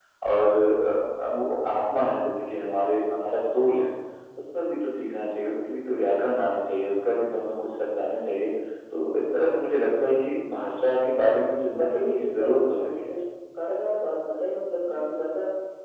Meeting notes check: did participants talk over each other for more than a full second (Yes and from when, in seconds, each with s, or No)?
Yes, from 11.7 s